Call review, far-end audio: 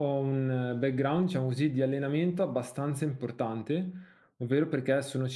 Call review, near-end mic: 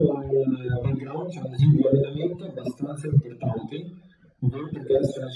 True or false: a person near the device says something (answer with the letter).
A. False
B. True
A